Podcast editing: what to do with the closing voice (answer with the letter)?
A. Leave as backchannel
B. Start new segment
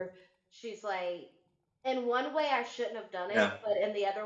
A